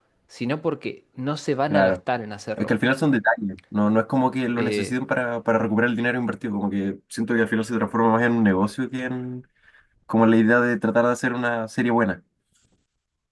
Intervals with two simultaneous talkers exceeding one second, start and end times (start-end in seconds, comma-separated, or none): none